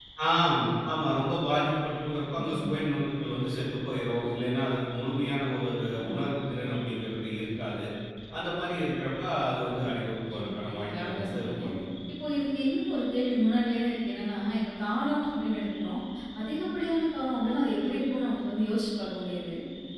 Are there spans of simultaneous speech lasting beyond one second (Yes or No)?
Yes